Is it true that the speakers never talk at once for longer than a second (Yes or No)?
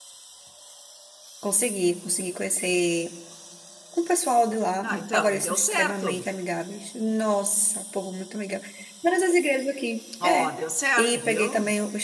No